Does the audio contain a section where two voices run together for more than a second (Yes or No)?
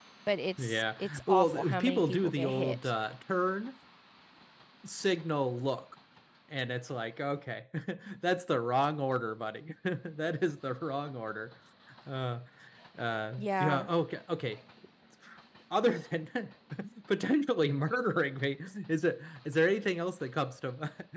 Yes